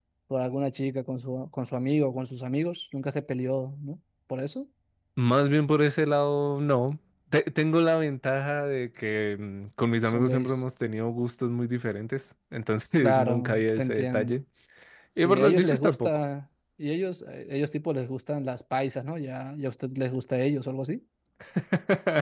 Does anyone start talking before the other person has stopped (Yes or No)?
Yes